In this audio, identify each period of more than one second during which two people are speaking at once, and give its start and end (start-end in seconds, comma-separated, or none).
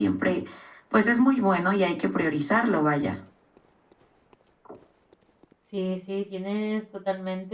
none